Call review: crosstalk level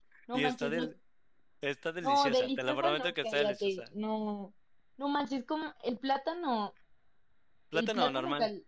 present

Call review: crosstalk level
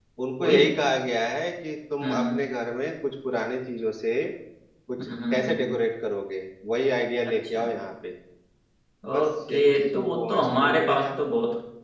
present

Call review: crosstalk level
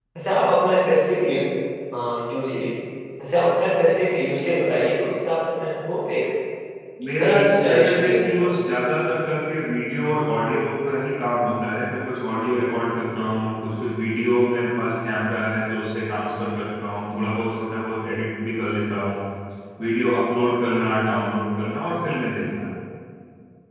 present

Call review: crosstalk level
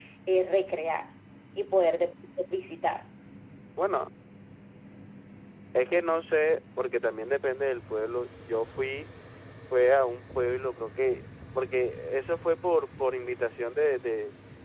none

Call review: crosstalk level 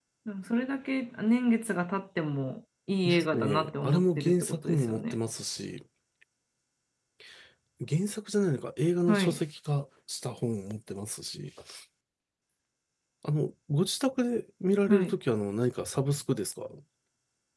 present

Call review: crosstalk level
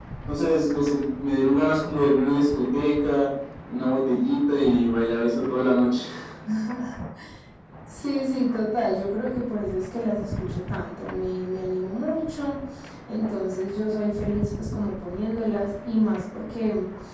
none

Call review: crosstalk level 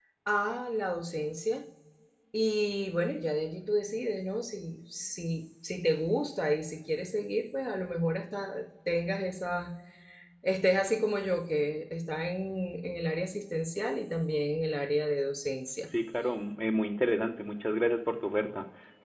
none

